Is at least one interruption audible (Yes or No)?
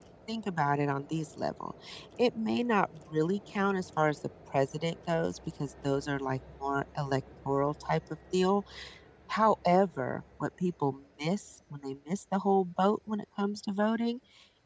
No